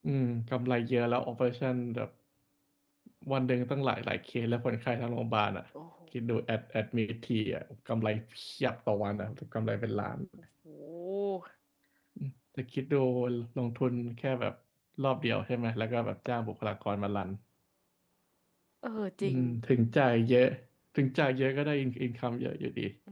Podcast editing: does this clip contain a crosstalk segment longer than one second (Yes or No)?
No